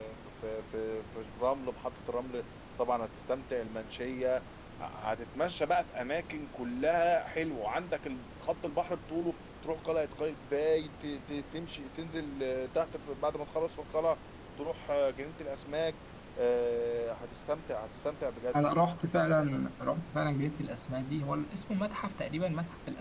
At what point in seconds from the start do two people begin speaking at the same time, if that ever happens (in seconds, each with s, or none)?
none